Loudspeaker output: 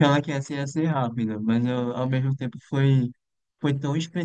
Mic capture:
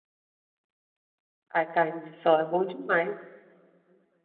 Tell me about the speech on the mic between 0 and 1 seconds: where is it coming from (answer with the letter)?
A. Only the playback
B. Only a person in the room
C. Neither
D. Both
C